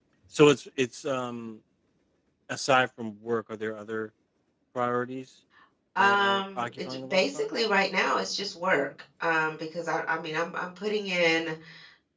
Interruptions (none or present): present